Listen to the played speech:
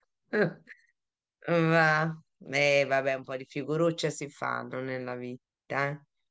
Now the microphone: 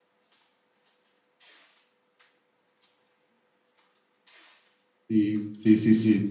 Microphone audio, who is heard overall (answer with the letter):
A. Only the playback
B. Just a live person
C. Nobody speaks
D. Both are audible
B